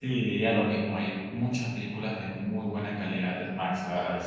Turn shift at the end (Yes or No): No